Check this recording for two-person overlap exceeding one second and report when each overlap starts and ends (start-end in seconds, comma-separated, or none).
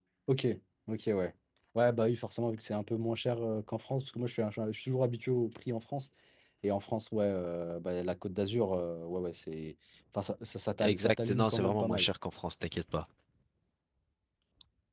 10.8-12.1